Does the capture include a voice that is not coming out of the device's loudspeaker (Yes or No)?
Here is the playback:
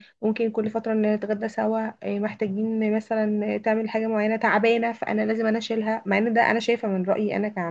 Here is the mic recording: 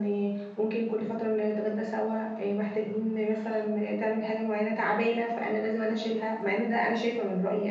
No